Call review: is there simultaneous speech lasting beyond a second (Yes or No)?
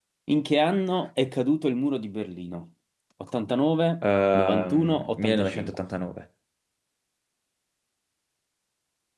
Yes